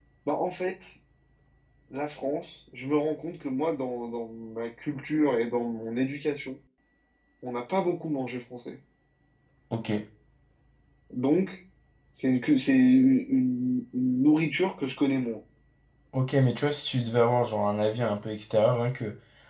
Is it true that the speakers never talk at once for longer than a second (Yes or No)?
Yes